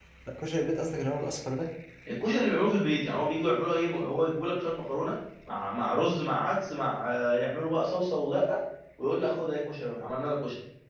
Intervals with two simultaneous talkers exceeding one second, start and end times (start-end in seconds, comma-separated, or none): none